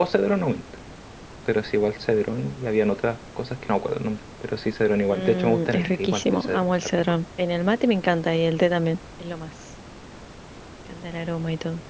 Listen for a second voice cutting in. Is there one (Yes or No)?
Yes